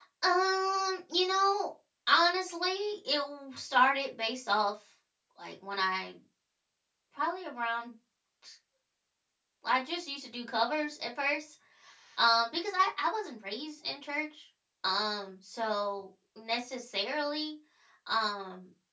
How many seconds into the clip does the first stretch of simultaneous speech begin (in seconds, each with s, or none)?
none